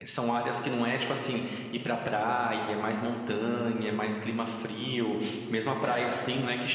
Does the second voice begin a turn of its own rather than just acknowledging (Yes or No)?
No